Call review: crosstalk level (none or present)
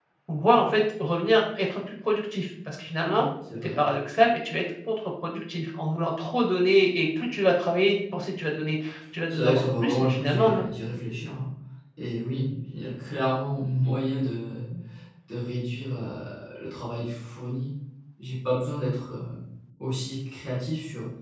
present